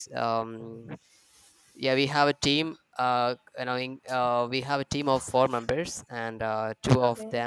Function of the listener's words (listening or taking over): listening